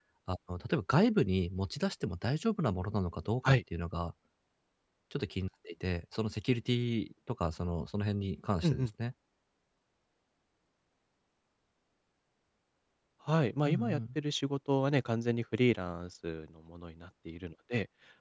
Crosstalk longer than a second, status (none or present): none